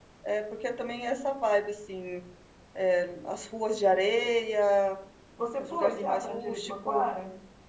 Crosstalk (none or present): present